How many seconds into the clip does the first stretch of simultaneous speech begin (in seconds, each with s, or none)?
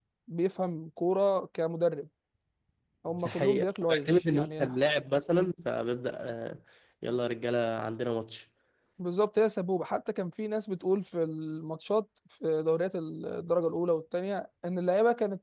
3.1 s